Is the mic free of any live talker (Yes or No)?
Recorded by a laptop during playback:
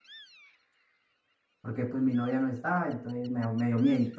No